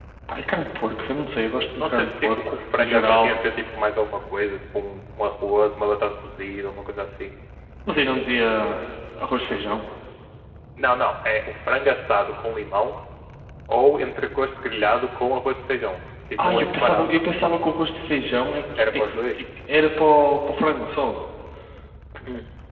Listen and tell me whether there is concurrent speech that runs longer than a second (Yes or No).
Yes